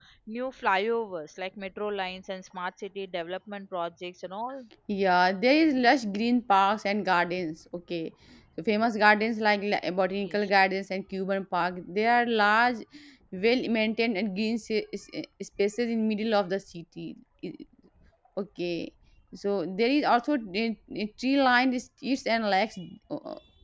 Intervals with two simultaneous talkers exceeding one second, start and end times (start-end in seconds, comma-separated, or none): none